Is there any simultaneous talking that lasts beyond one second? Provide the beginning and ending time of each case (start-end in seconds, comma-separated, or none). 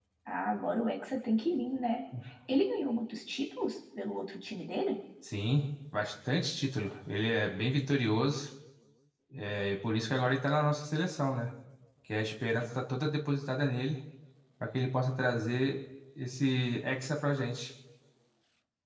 none